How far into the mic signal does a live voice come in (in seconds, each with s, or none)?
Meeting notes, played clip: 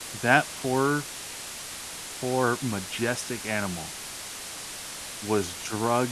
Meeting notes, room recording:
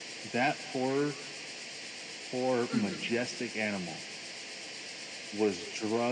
2.7 s